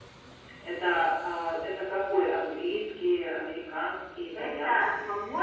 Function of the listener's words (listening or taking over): taking over